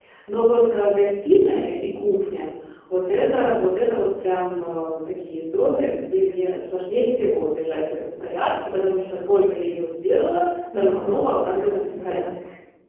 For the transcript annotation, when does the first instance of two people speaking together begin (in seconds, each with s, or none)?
10.7 s